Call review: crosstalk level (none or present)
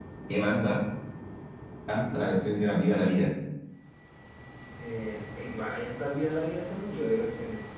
none